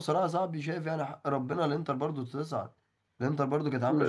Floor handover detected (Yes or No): Yes